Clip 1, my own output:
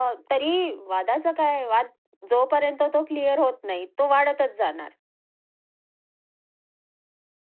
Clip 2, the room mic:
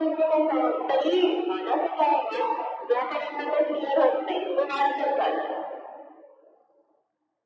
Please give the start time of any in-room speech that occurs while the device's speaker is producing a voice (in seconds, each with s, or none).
none